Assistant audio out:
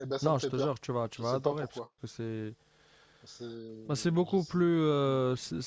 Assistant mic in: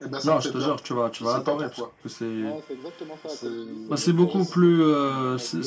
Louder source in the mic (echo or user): echo